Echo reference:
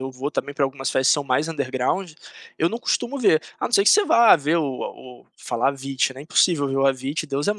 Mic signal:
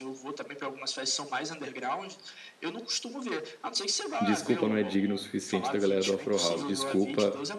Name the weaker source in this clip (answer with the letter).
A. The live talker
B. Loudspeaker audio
B